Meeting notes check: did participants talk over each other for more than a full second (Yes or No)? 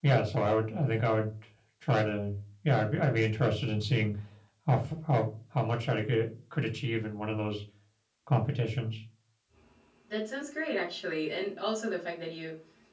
No